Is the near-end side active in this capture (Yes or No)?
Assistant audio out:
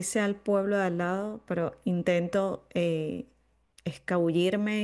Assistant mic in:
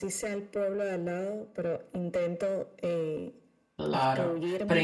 Yes